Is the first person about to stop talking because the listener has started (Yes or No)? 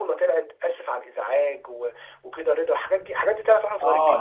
Yes